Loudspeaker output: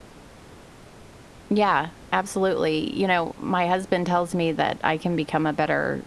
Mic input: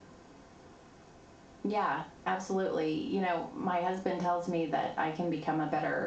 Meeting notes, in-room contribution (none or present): none